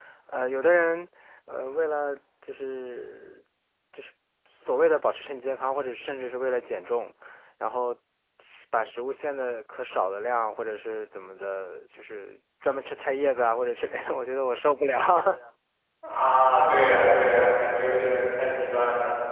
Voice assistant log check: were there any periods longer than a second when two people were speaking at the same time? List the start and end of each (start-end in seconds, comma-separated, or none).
none